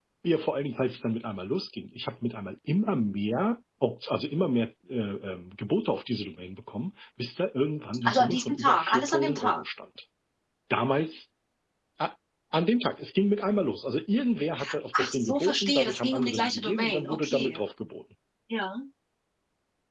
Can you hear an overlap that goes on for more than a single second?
Yes, from 8.0 s

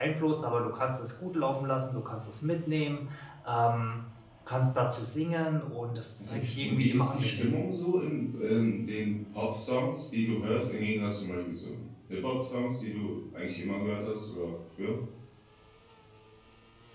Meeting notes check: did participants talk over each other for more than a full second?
Yes, from 6.2 s

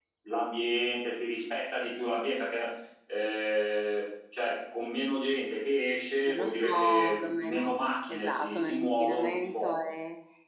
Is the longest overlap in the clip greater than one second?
Yes, from 6.3 s

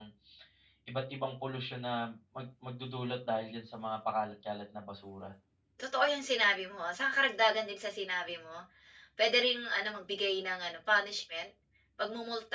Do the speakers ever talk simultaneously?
No

